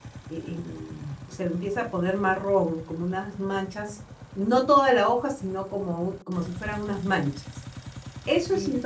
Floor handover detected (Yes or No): Yes